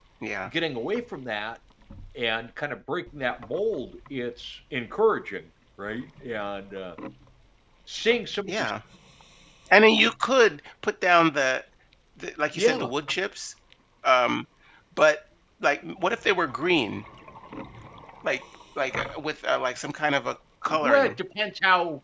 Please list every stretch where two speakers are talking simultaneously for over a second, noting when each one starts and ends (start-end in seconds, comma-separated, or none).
none